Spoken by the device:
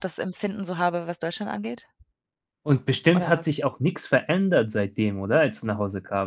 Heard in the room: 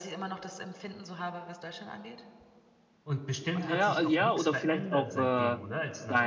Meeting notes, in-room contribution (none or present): present